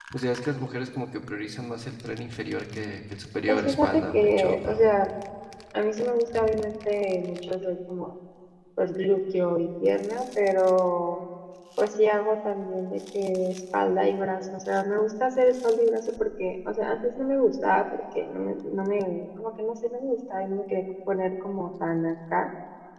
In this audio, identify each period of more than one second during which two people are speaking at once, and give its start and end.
3.5-4.9

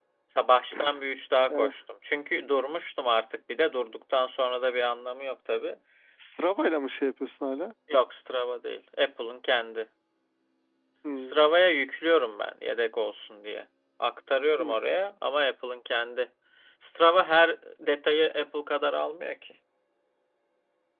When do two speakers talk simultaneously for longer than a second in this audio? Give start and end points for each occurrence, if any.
none

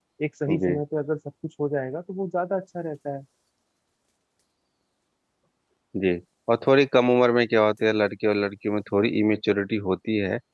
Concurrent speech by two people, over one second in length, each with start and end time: none

